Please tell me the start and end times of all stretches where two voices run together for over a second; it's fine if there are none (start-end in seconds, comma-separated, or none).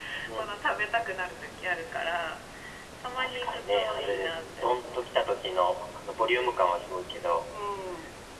3.1-5.0